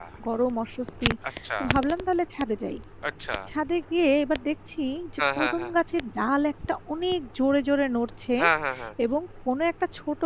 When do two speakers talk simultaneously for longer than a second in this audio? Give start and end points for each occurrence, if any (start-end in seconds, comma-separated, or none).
none